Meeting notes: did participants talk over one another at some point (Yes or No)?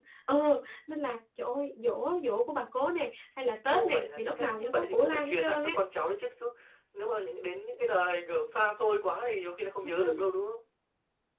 Yes